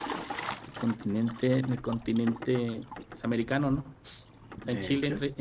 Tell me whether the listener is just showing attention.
Yes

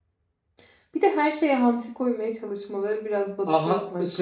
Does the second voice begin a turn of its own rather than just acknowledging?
Yes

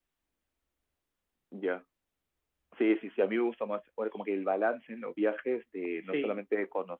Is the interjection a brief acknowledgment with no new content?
Yes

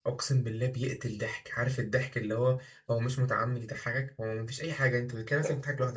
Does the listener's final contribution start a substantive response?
No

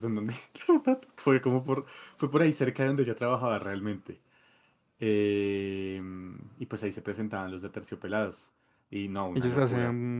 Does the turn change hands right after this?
Yes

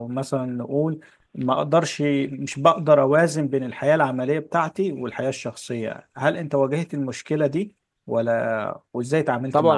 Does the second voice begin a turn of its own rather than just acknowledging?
Yes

